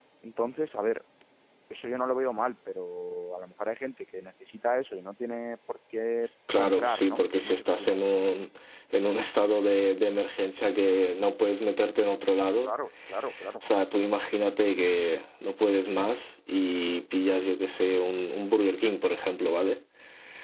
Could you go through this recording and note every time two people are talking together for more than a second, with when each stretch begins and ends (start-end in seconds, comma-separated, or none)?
6.5-8.0